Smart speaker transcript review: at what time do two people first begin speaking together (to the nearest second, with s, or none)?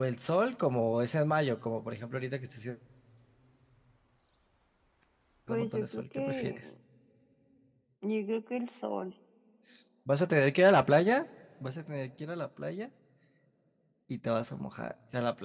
5 s